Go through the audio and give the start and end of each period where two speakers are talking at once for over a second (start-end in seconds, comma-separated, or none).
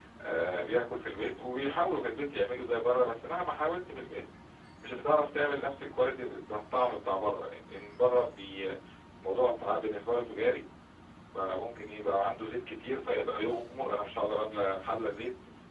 none